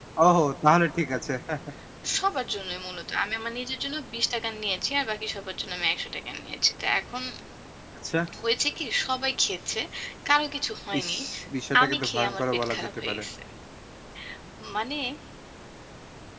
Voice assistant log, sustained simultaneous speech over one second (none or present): present